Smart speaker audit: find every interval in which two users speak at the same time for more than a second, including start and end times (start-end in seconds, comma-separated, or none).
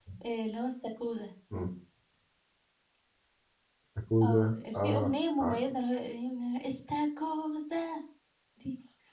4.2-5.6